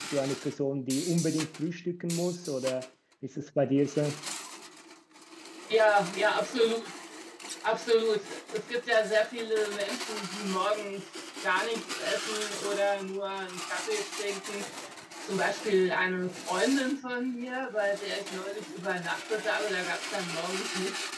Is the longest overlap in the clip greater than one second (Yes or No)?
No